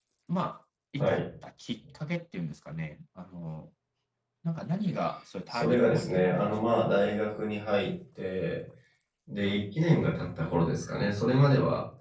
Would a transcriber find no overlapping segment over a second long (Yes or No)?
No